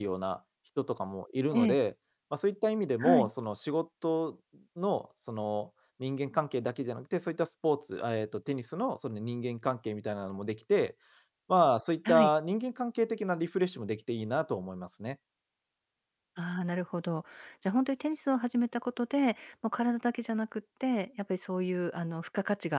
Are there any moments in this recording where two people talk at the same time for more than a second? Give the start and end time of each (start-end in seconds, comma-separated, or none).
none